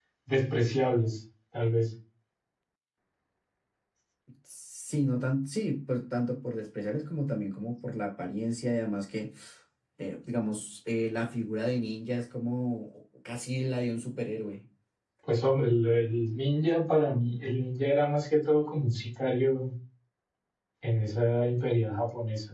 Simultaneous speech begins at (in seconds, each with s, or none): none